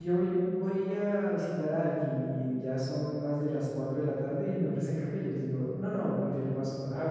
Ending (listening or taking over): listening